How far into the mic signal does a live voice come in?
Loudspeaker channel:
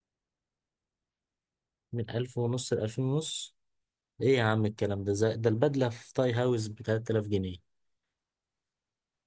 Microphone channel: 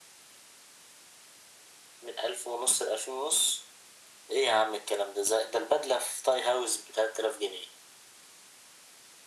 none

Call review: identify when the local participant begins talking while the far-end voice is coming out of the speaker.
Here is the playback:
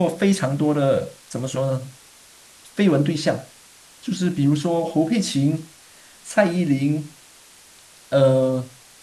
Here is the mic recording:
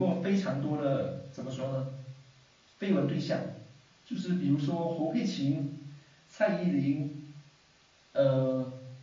none

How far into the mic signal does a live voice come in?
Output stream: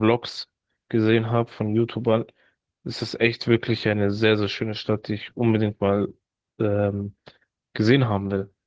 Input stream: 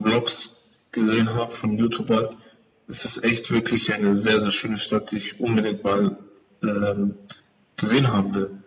none

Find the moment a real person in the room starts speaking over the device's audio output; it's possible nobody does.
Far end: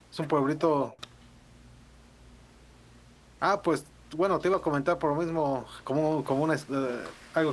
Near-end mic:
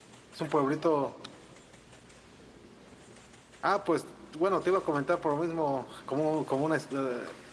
none

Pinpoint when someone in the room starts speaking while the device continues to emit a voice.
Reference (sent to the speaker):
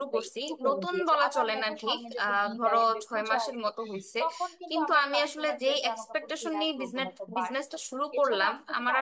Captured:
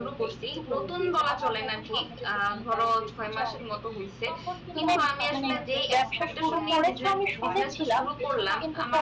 4.7 s

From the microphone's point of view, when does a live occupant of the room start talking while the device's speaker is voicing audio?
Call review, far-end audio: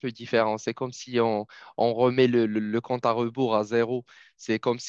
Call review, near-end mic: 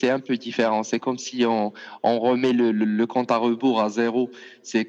none

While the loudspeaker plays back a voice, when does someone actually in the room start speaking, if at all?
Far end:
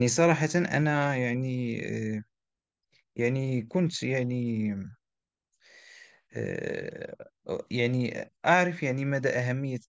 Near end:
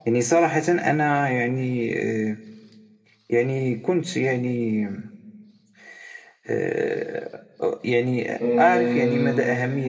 8.4 s

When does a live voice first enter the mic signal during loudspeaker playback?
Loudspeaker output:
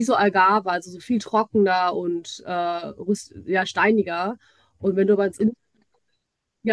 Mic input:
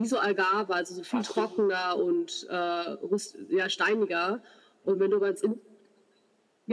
1.1 s

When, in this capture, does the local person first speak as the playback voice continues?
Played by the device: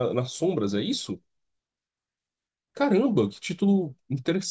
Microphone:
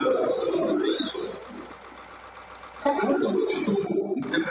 none

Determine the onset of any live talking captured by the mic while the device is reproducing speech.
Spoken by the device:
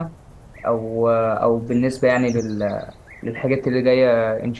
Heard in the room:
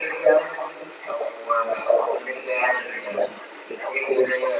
none

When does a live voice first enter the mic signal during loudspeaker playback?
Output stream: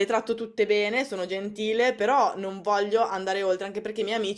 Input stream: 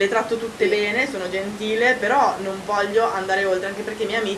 0.4 s

